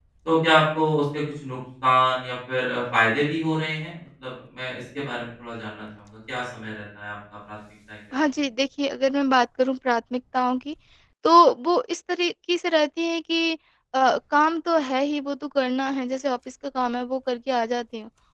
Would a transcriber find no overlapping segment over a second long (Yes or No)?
Yes